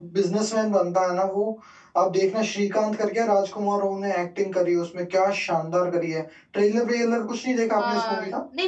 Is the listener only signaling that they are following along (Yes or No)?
No